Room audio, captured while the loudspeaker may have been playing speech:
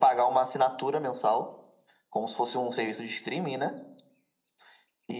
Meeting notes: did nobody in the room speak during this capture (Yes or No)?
Yes